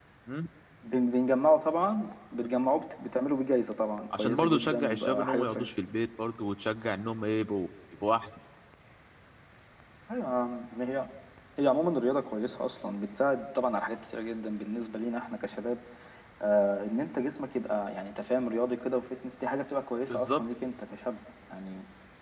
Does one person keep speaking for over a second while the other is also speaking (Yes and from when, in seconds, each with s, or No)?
Yes, from 4.1 s